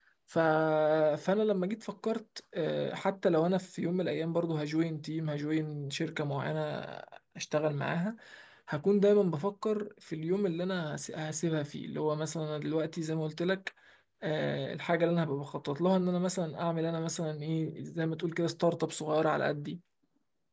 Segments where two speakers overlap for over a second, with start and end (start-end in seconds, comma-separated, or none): none